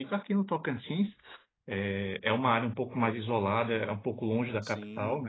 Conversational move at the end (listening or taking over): listening